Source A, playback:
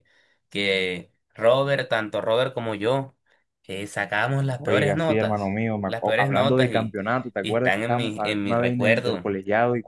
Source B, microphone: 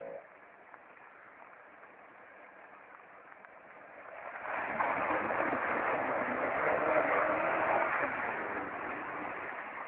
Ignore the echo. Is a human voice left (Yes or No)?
No